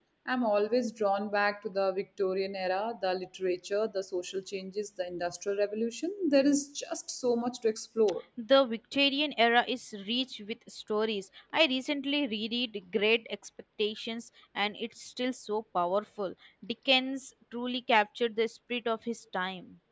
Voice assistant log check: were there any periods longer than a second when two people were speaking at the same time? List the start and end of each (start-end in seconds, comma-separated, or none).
none